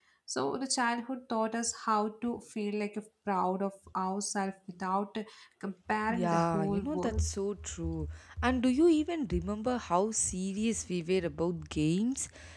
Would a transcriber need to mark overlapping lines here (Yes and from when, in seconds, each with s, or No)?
Yes, from 6.1 s